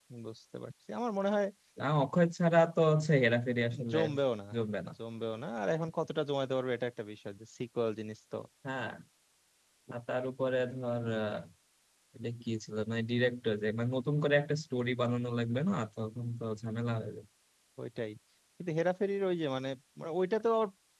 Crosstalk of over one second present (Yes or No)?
No